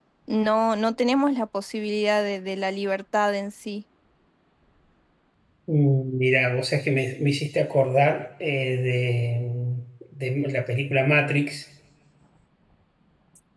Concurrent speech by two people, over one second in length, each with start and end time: none

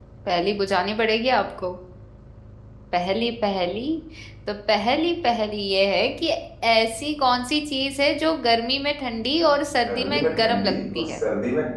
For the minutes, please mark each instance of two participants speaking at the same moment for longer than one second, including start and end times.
9.9-11.2

